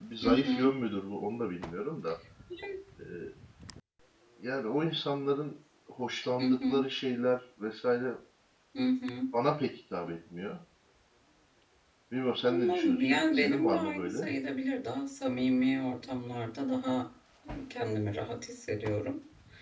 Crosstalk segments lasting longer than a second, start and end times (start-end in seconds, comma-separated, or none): 12.5-14.3